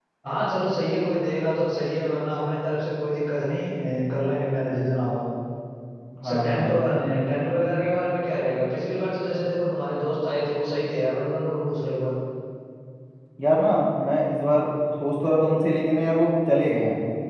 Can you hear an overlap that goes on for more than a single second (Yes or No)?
No